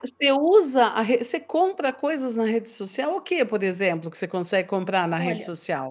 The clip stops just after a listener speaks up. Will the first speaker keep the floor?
No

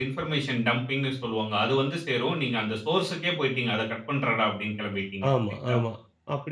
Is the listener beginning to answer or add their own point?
Yes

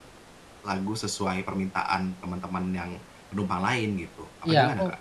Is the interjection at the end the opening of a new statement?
Yes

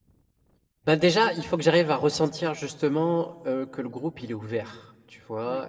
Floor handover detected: No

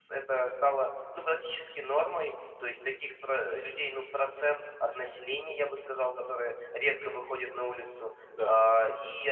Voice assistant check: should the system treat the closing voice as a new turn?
No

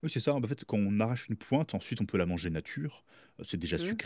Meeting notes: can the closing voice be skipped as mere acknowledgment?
Yes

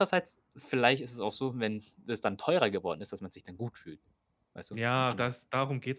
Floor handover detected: Yes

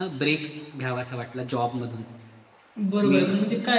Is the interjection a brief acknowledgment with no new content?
No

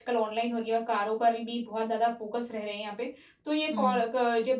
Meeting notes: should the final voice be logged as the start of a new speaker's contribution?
No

